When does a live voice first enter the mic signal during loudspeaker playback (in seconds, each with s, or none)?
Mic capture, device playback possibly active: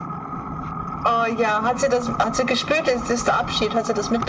none